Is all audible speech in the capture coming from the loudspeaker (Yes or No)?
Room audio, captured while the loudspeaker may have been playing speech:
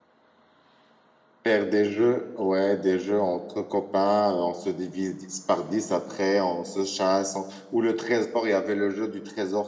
No